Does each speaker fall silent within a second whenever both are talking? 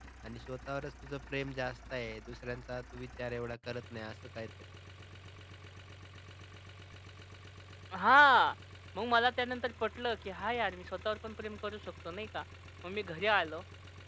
Yes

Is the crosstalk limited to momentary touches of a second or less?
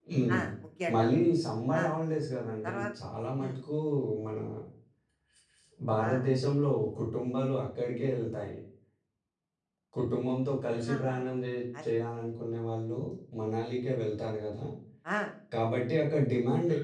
Yes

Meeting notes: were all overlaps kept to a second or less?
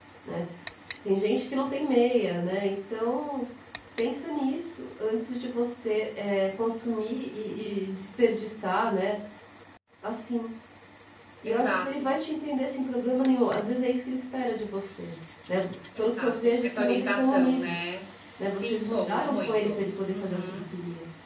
No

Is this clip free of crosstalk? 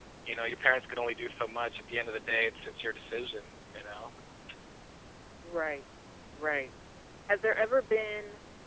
Yes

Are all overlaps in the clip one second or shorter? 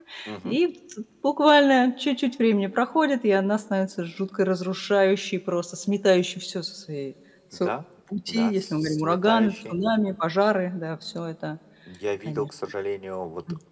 No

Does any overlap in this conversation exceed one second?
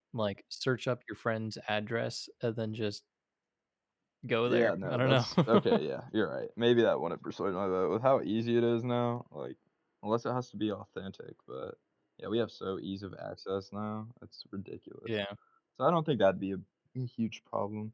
Yes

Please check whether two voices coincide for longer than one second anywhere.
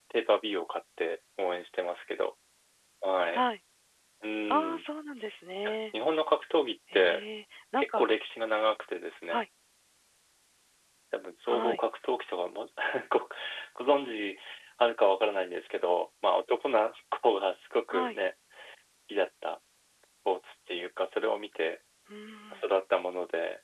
No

